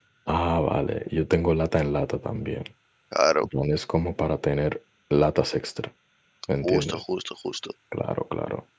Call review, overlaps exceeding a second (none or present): none